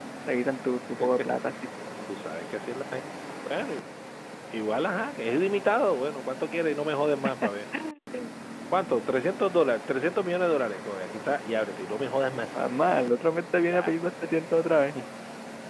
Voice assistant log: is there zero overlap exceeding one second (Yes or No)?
Yes